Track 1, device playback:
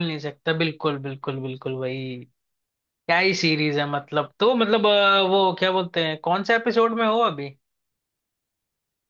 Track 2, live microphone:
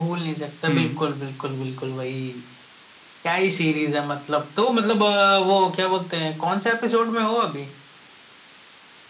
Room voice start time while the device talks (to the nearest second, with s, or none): 1 s